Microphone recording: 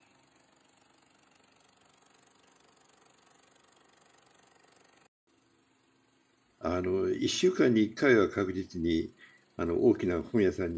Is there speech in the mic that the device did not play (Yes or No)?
Yes